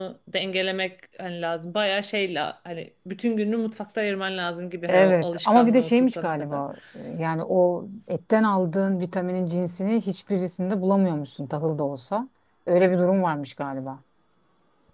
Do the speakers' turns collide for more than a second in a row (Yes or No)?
Yes